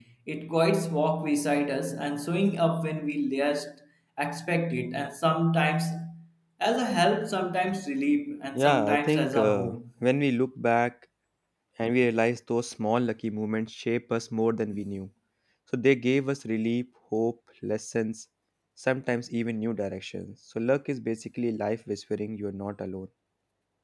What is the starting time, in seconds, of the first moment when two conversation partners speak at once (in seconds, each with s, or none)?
8.5 s